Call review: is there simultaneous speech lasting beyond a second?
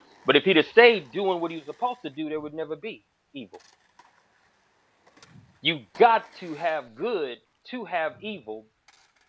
No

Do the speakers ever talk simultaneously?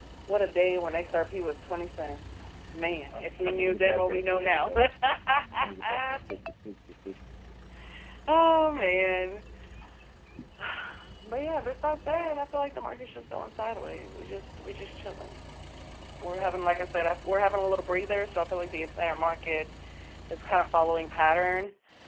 Yes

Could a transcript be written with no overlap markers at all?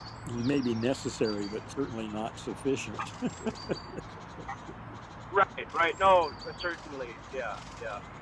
Yes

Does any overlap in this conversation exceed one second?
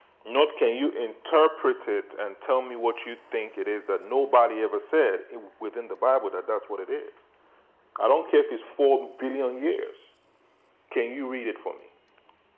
No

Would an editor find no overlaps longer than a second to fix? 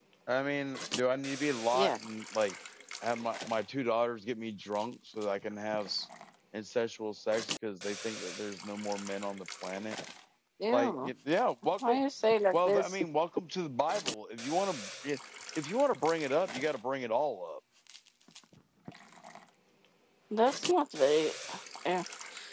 Yes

